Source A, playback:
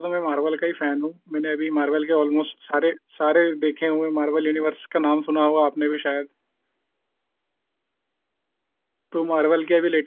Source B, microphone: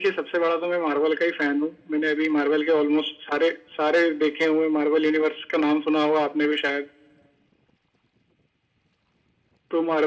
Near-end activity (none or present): none